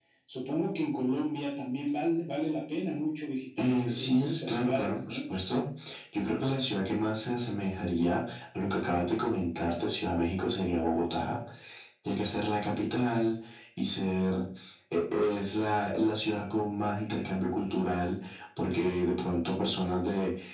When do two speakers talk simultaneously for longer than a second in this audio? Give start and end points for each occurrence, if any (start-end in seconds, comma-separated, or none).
3.6-5.2